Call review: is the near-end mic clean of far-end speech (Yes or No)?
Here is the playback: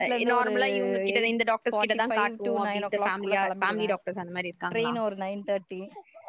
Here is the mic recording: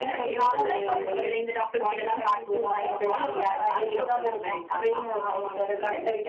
No